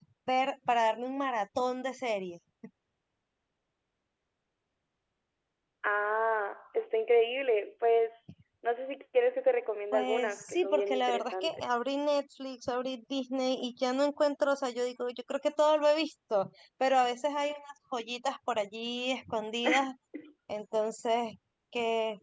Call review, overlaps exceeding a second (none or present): present